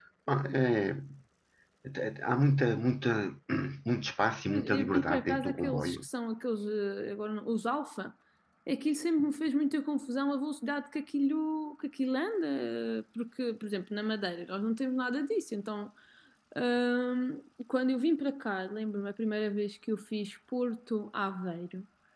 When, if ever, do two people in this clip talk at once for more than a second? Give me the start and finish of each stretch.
4.5-6.1

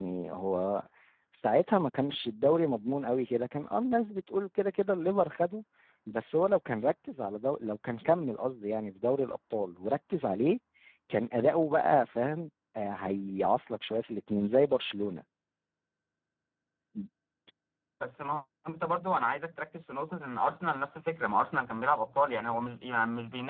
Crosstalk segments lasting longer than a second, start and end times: none

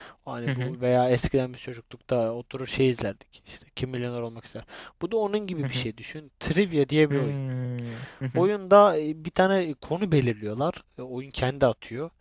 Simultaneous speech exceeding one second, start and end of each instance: none

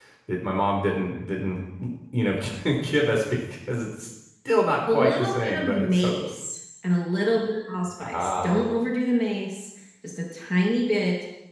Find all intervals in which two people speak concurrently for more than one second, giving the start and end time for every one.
4.9-6.1

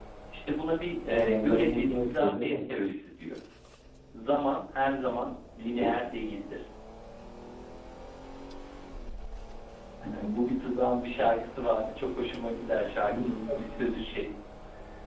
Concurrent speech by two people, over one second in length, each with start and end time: 1.1-2.5

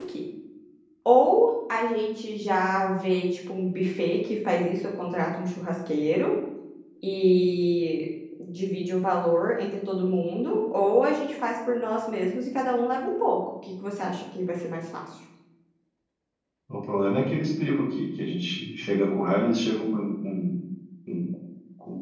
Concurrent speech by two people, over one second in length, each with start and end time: none

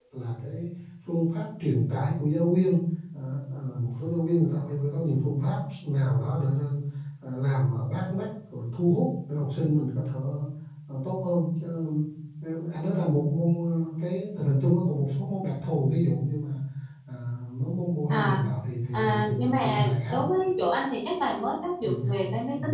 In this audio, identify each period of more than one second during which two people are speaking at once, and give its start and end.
18.9-20.2

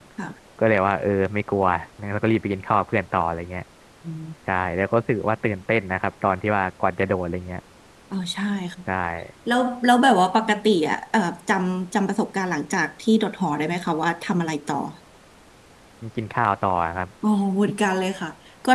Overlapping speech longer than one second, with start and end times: none

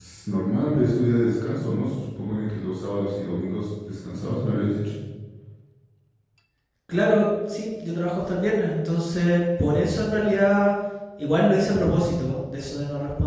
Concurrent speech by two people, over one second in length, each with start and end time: none

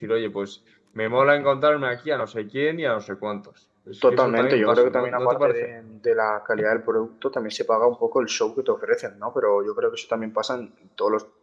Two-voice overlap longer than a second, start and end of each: 4.1-5.5

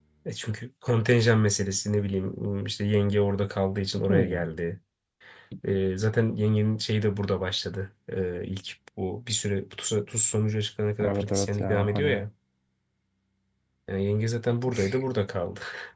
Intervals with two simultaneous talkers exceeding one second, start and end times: 11.0-12.2

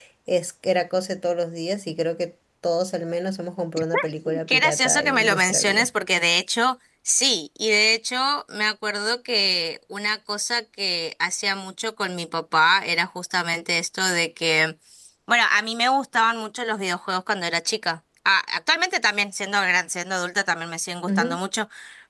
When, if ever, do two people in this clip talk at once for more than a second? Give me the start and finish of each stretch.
4.5-5.9

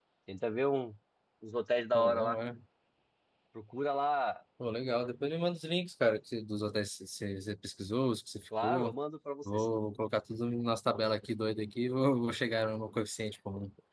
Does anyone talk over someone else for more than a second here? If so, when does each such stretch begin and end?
none

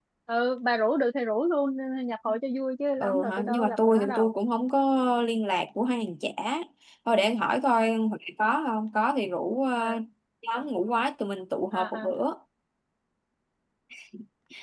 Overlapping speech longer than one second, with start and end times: 3.0-4.3

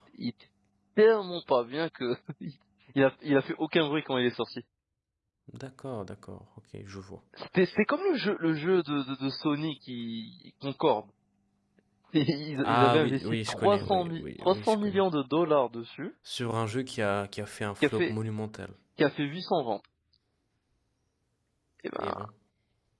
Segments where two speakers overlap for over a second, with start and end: 12.6-15.0

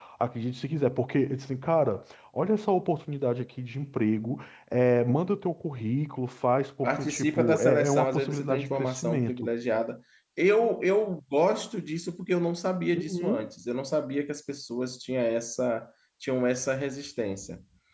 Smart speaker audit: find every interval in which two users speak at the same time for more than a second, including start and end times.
6.8-9.5

